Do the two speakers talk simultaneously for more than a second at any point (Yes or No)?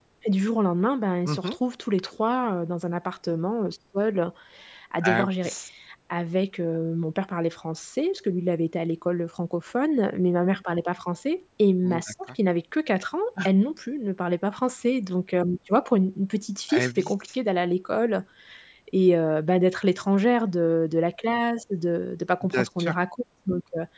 No